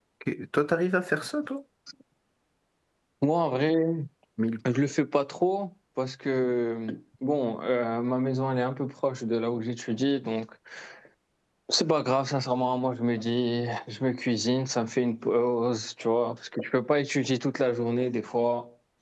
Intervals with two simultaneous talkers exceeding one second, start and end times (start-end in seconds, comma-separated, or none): none